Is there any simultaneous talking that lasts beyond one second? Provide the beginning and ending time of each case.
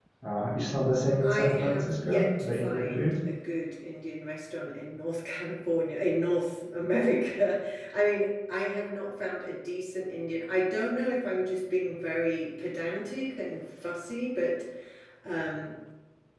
1.2-3.1

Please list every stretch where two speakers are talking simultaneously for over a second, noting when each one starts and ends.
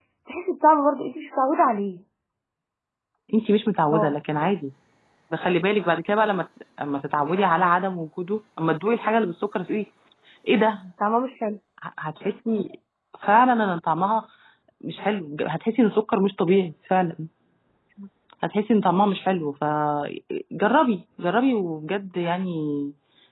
none

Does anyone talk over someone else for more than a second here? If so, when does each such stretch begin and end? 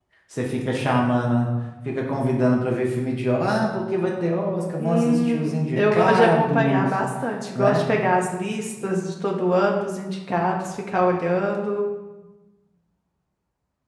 4.8-6.9

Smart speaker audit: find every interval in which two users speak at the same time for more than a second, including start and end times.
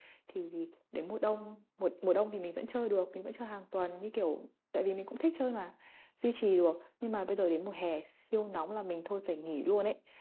none

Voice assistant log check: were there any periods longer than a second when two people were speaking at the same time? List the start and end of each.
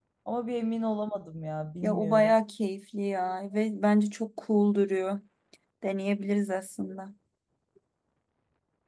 none

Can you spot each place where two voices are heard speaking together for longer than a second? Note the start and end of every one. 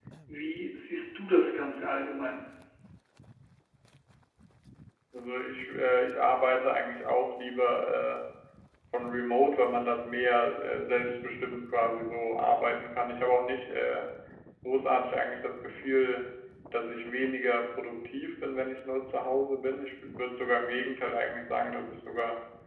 none

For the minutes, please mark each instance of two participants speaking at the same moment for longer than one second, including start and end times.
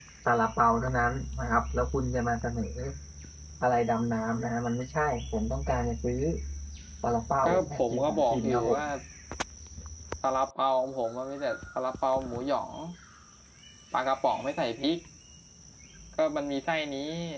7.4-8.8

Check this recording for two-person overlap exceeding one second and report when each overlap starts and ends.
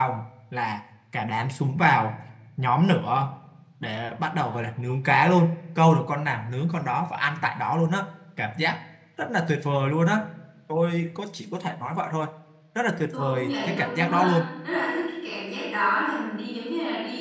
13.1-14.4

